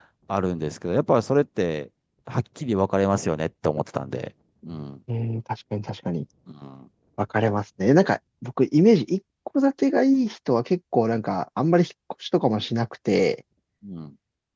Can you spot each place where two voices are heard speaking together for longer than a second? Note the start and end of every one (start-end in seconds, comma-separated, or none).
none